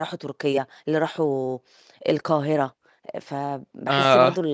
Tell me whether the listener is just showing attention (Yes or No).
Yes